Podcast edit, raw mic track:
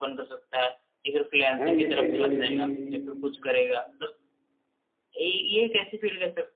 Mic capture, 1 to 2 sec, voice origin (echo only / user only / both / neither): both